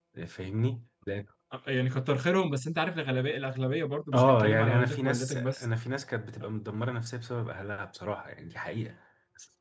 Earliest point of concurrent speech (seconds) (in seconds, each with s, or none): 4.1 s